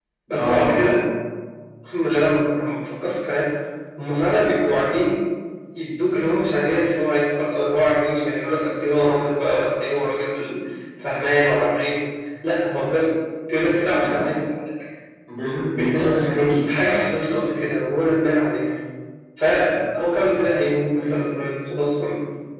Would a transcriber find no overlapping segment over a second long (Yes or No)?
No